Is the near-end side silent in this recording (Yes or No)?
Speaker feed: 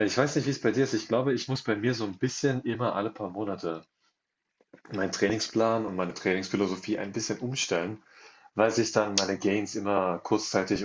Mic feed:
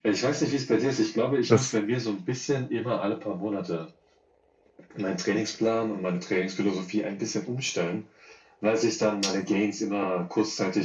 No